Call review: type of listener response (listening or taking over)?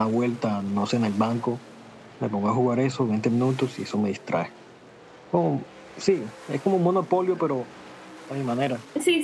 taking over